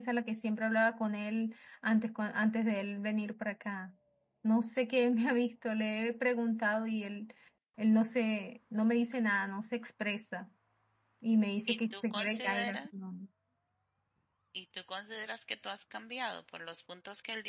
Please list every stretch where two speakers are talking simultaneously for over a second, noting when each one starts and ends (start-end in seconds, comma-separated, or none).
11.7-12.9